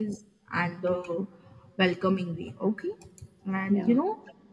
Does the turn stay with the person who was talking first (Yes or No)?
Yes